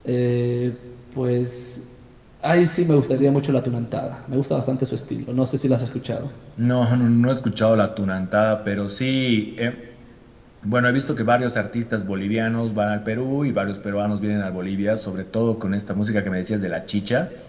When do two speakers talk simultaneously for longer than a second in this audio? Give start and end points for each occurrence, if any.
none

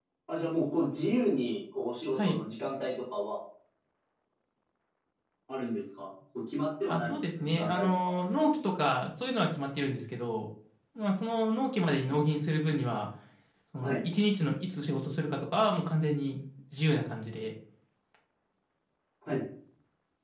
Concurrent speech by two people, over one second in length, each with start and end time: 6.9-8.1

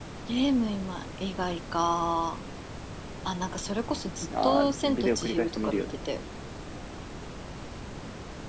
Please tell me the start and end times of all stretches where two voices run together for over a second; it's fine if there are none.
4.4-5.8

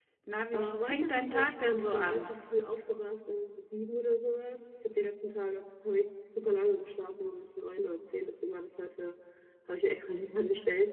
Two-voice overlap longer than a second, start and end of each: 0.5-2.3

